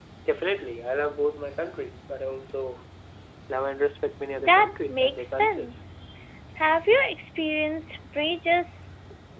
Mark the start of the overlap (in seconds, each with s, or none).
4.4 s